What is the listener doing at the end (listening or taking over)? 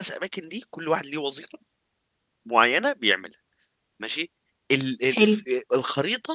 listening